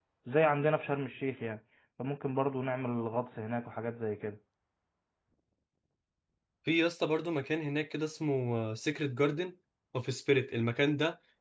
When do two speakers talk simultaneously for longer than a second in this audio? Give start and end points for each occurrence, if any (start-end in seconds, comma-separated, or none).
none